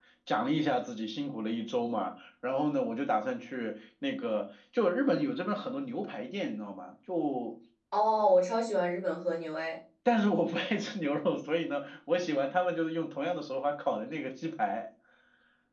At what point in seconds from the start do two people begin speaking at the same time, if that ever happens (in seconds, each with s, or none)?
none